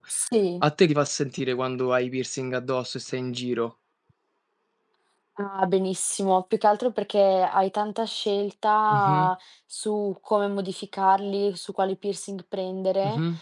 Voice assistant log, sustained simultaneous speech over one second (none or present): none